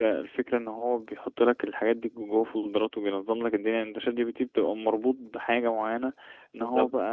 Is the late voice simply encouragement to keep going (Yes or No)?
Yes